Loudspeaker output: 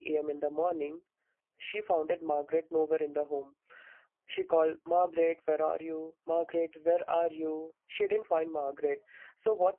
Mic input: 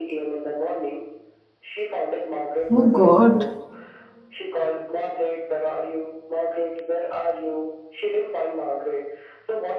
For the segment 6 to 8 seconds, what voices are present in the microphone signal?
echo only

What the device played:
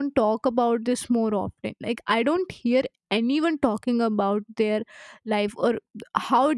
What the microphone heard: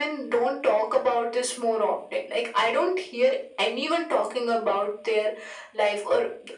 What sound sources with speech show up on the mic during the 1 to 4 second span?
echo only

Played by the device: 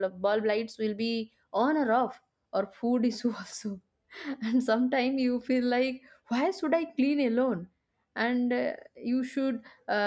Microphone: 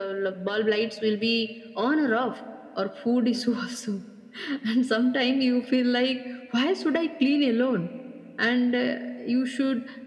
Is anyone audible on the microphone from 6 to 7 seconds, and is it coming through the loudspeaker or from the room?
echo only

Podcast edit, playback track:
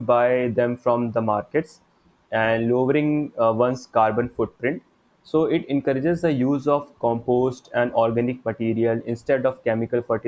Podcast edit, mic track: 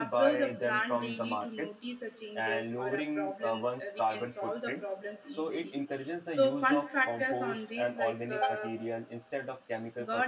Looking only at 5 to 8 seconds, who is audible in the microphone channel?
both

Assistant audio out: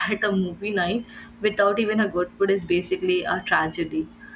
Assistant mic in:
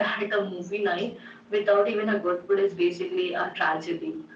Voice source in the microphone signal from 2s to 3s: echo only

